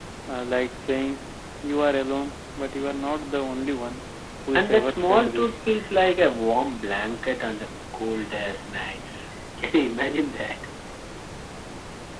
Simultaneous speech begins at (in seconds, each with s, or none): 4.5 s